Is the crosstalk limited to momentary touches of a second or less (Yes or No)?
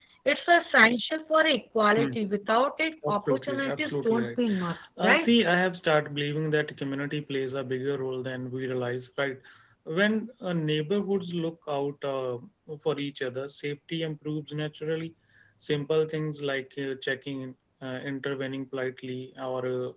No